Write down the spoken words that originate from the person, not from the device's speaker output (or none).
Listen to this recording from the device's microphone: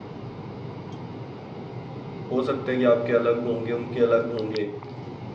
हो सकता है कि आपके अलग होंगे उनके अलग होंगे